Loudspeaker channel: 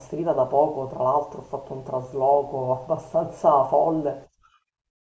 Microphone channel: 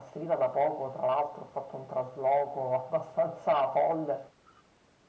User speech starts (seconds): none

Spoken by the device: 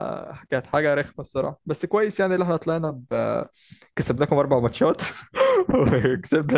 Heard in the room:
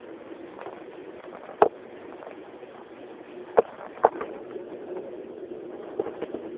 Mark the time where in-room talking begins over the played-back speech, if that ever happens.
none

